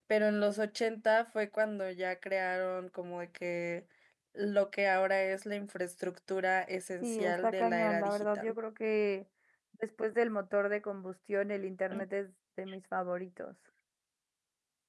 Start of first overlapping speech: 7 s

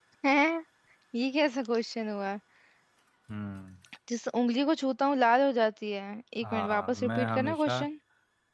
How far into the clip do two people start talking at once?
6 s

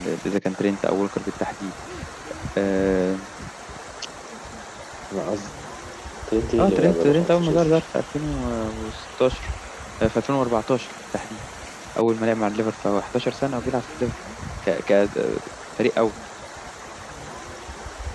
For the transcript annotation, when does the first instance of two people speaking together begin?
7 s

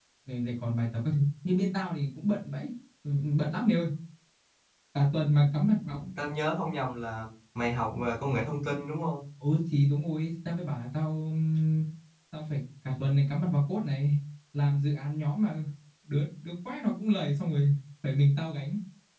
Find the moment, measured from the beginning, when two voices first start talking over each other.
none

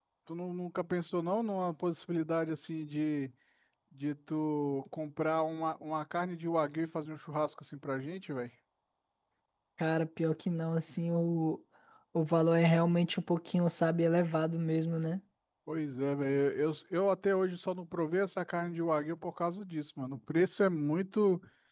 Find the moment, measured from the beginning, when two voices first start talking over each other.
none

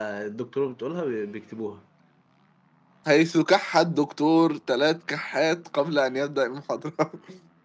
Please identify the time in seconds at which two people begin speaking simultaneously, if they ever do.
none

